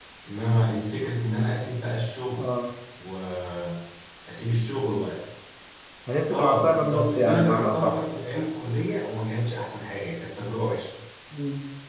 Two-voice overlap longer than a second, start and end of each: 6.3-8.0

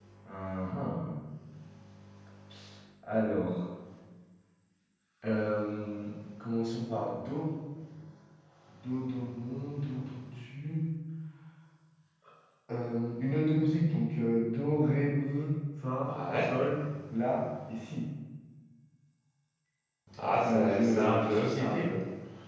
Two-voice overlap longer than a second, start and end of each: 20.3-21.9

